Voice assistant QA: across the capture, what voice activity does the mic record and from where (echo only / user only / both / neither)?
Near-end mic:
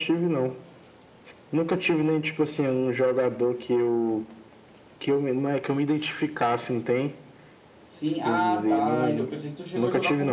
both